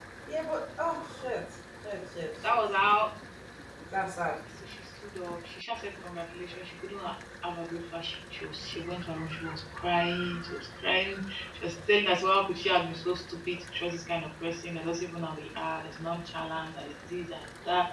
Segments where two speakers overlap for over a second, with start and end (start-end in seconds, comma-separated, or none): none